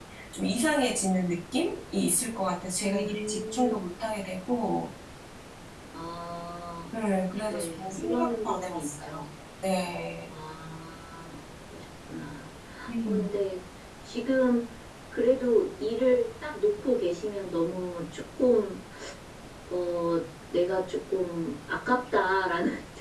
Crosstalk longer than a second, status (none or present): present